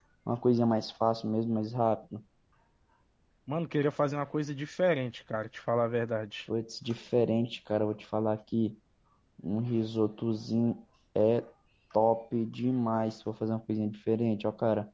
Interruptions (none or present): none